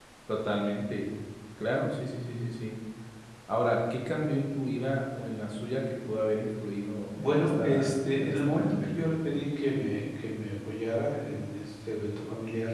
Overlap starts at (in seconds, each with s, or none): 7.2 s